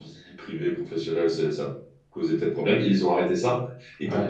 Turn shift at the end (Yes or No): No